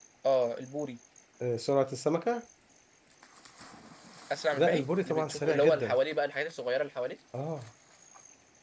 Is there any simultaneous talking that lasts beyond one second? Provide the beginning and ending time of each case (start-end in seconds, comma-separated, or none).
4.5-6.0